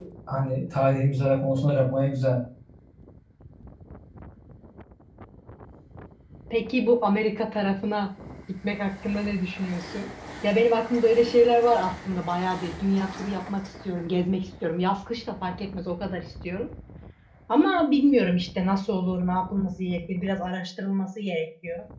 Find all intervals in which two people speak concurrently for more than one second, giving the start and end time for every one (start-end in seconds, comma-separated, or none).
none